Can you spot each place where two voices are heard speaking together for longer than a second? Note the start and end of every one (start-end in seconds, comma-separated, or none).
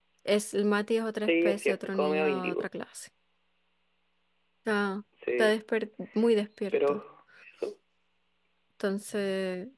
1.2-2.6